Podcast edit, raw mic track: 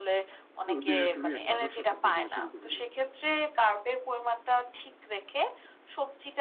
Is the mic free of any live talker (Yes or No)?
No